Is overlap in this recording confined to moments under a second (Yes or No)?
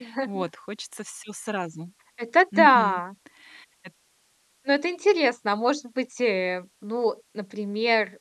Yes